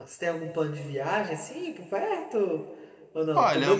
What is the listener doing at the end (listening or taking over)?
taking over